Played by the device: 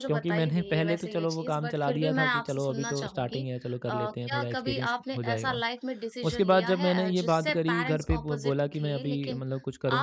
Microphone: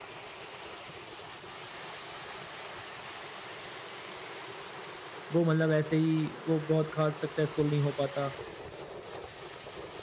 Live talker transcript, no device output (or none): वो मतलब ऐसे ही वो बहुत ख़ास सक्सेसफुल नहीं हो पाता।